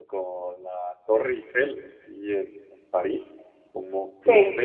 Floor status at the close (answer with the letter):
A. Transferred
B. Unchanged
B